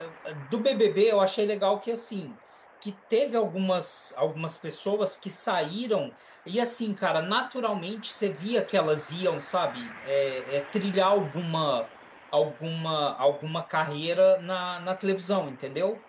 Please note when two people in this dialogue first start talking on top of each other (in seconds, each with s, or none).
none